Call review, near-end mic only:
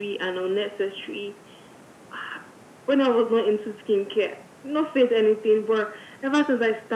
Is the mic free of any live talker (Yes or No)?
Yes